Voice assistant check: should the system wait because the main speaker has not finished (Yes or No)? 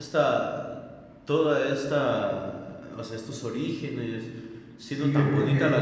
No